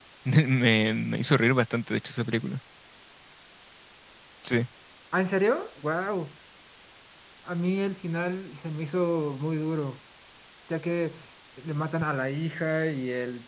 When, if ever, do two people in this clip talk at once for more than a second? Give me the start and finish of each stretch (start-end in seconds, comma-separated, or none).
none